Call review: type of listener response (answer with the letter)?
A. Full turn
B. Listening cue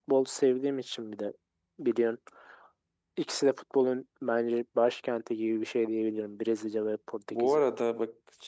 A